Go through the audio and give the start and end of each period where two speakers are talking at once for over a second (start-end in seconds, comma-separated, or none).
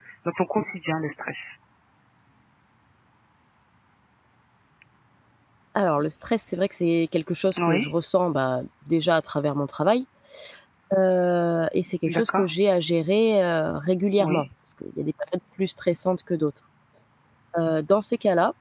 none